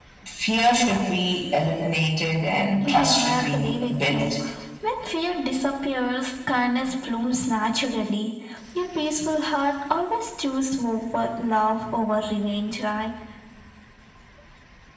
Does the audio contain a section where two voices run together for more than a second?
Yes, from 2.8 s

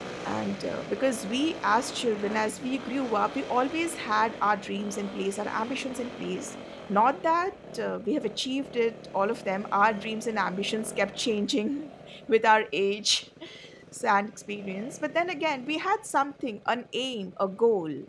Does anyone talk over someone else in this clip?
No

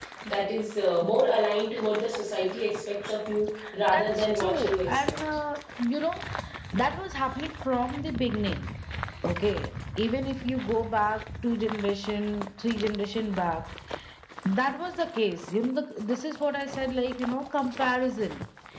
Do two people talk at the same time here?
Yes, from 3.9 s

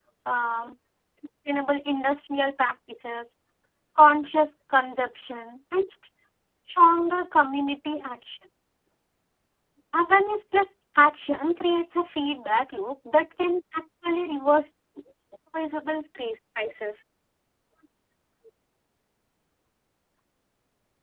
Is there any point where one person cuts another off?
No

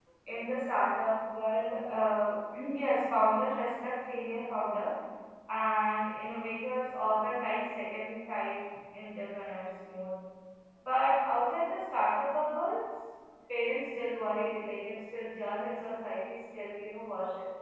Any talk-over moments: No

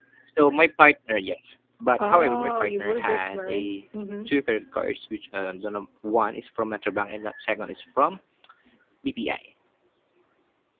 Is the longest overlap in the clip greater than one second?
Yes, from 2.0 s

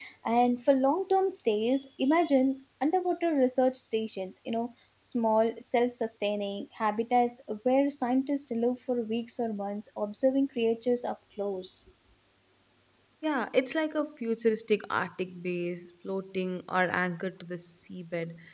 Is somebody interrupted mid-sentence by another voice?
No

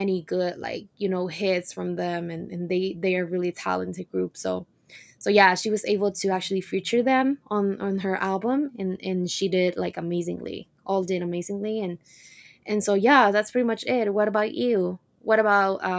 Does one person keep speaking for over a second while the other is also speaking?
No

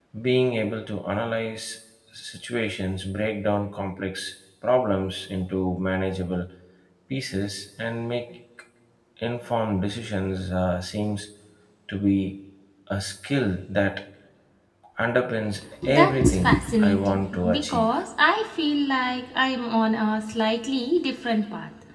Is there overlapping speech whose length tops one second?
Yes, from 15.8 s

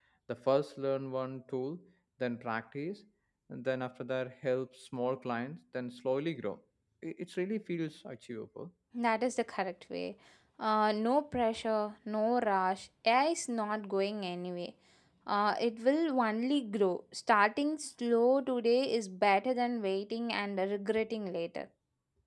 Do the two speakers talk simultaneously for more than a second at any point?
No

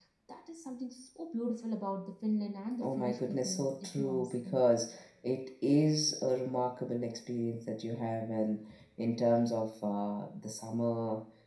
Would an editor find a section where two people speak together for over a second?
Yes, from 2.8 s

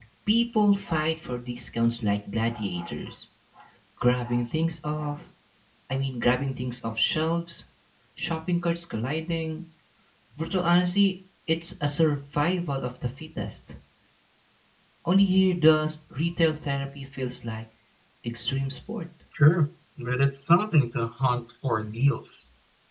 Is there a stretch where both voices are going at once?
No

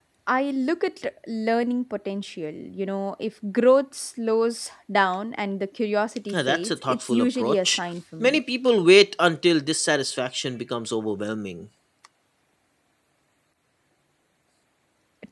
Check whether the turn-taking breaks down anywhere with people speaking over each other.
Yes, from 6.3 s

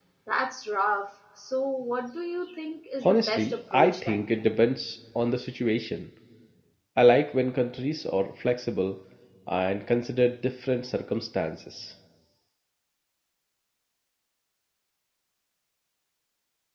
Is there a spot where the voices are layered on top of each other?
Yes, from 3.0 s

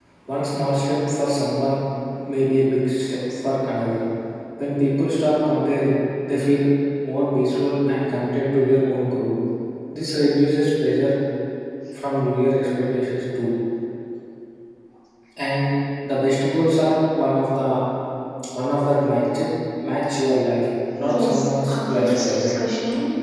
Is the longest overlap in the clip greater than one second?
Yes, from 21.0 s

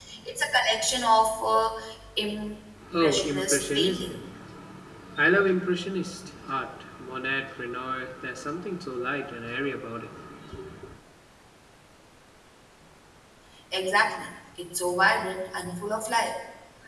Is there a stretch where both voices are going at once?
Yes, from 3.0 s

